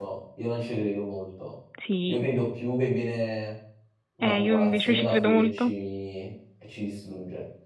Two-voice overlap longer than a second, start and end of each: 4.2-5.7

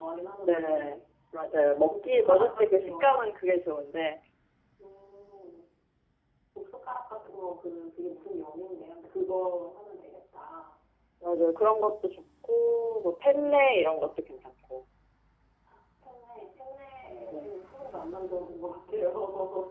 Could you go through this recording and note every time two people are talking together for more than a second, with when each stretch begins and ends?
1.7-3.1

